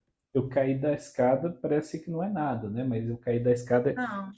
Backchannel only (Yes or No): No